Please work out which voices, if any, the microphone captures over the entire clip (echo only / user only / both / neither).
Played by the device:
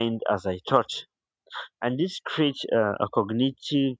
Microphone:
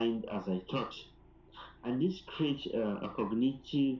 echo only